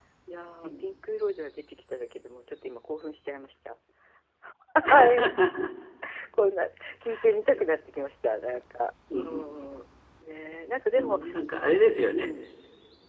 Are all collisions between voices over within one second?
Yes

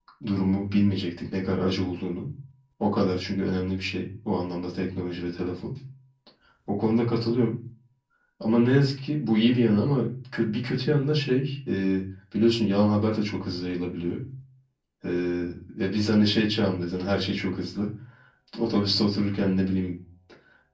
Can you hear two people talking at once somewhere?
No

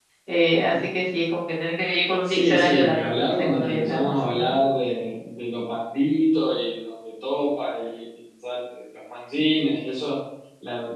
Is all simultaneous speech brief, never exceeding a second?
No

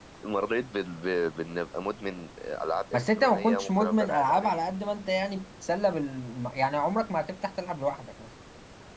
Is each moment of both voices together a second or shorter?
No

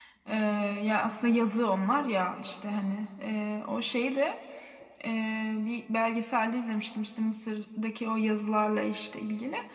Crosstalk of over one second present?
No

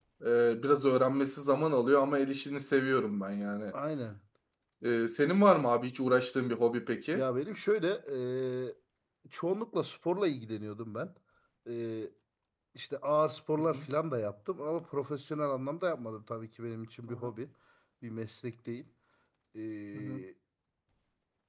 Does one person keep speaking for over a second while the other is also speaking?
No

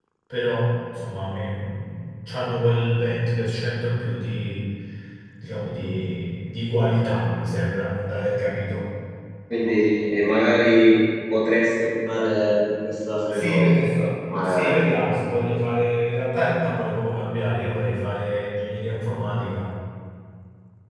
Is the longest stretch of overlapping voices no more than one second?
Yes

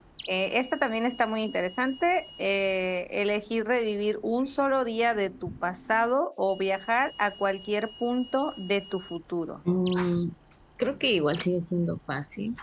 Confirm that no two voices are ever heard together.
Yes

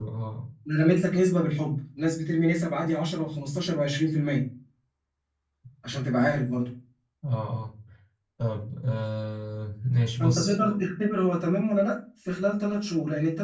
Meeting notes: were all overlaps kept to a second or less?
Yes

